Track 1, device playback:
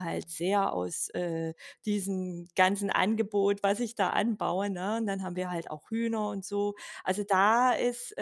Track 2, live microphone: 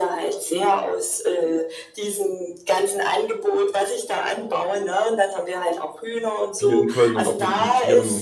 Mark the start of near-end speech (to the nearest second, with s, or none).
7 s